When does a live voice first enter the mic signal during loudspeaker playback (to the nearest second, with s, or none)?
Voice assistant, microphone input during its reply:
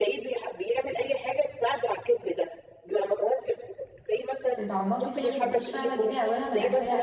4 s